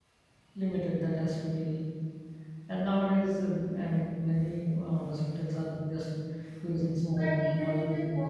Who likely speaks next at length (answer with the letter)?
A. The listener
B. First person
A